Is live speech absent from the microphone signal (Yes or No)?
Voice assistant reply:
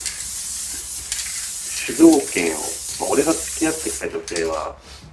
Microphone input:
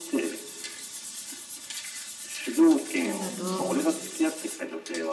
No